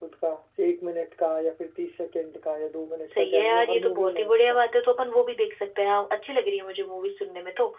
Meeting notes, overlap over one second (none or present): present